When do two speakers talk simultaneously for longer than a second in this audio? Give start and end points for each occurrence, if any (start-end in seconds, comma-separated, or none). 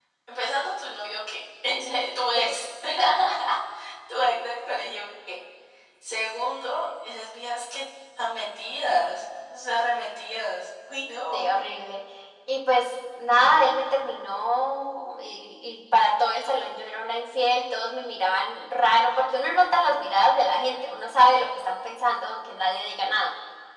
none